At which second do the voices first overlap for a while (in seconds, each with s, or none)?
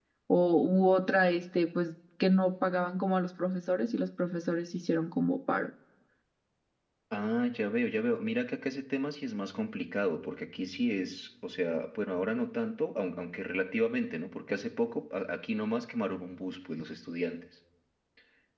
none